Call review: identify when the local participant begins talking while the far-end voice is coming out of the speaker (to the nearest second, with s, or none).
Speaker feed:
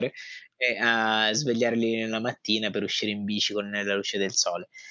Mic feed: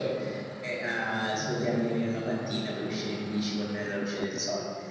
none